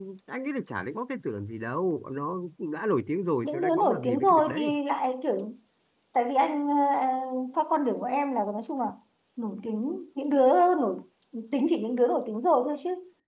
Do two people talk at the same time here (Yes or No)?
Yes